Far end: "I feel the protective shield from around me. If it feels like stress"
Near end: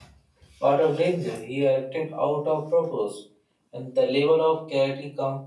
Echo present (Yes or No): No